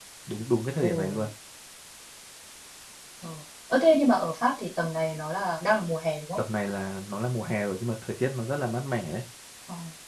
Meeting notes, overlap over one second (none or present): none